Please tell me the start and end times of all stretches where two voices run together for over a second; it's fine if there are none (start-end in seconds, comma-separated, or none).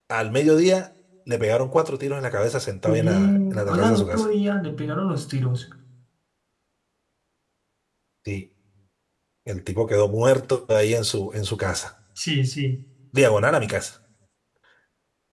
2.9-4.2